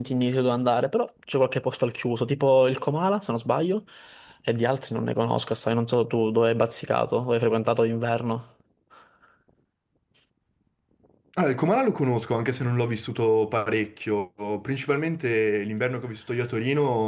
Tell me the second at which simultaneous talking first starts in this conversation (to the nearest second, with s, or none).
none